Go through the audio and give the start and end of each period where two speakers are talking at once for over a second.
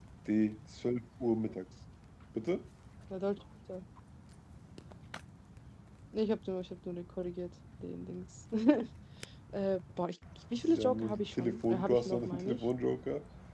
10.5-12.6

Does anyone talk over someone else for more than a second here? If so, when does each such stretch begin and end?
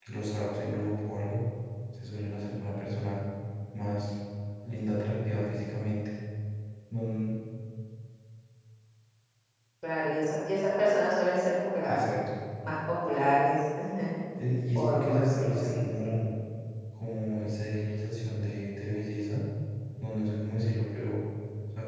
14.8-16.1

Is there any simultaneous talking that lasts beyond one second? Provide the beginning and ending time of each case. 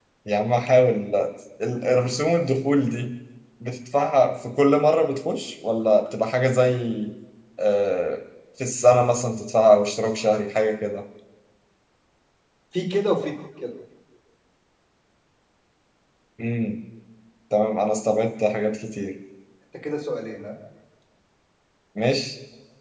none

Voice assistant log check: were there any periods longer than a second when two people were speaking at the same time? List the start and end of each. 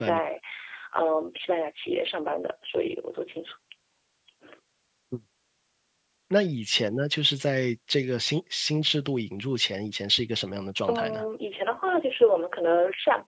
none

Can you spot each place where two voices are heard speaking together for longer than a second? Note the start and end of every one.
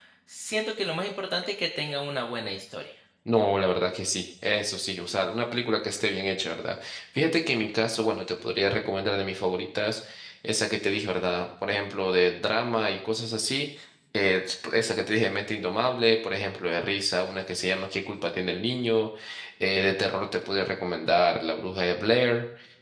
none

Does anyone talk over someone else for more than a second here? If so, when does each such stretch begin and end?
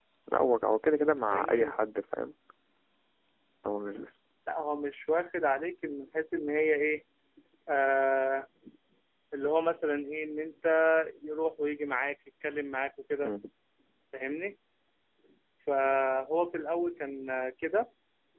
none

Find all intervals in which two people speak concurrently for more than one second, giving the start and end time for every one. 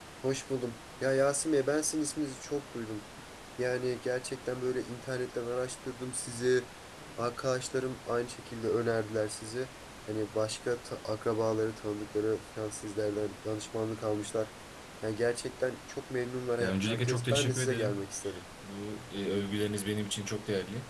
16.6-18.0

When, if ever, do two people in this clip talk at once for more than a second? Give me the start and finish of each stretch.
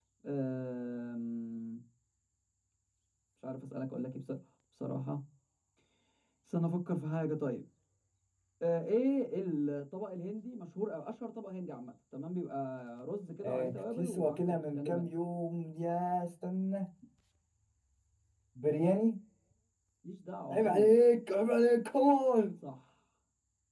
13.4-15.1

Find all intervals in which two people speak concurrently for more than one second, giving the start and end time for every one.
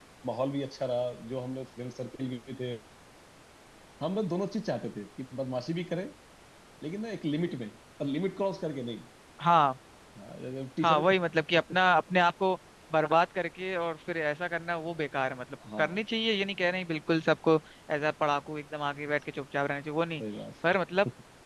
none

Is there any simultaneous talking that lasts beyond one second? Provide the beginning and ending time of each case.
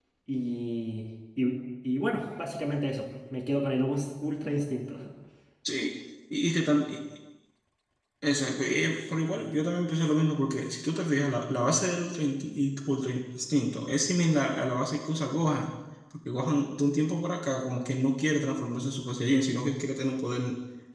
none

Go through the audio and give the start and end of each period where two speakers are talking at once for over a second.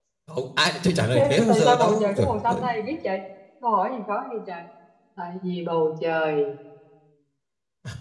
1.1-2.6

